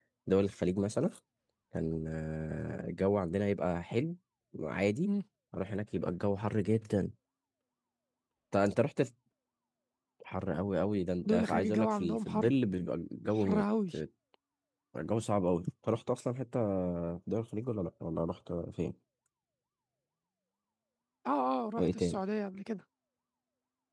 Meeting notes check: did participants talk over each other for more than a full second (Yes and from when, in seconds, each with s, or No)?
Yes, from 11.3 s